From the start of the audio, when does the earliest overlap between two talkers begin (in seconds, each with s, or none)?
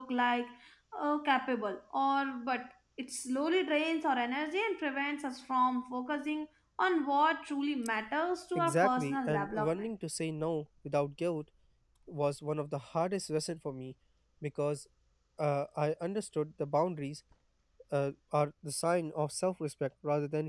8.6 s